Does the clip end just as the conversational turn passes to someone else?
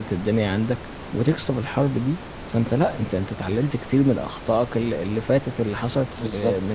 Yes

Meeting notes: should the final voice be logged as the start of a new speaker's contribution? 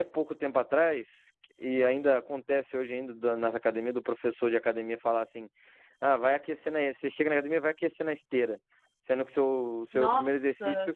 No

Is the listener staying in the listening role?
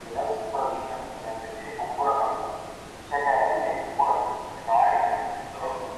No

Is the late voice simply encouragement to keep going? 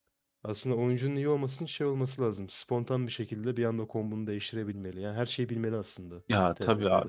No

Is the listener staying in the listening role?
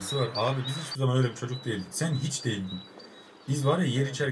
Yes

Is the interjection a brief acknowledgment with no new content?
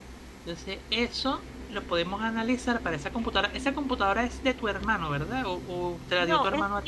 No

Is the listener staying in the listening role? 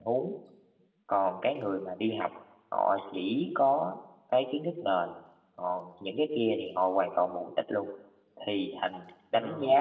Yes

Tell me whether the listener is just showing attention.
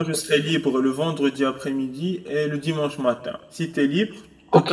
No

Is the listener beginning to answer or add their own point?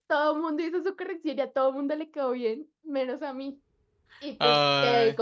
No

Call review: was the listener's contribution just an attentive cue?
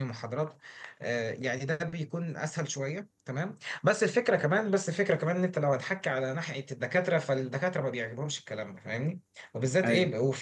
Yes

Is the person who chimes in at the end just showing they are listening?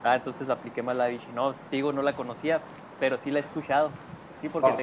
No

